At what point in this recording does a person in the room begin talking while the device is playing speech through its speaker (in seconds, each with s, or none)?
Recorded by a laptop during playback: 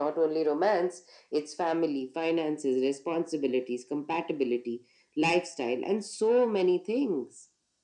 none